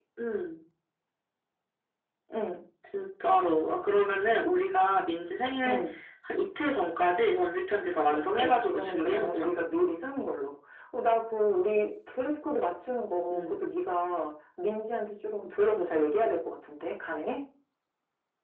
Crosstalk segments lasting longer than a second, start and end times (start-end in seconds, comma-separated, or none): 8.1-9.5